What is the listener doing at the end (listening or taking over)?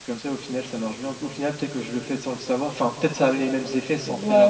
taking over